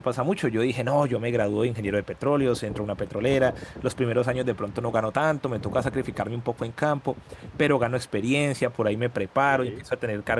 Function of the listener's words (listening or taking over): listening